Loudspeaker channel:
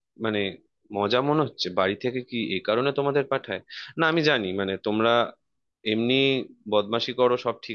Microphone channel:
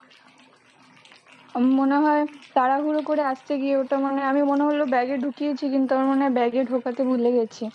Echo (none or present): none